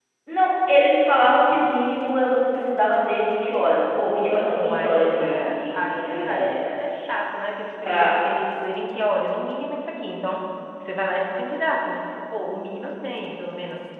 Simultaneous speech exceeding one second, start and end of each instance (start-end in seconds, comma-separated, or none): 4.6-6.5